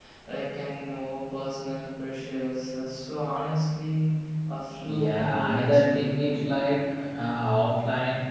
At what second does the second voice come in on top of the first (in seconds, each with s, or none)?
4.7 s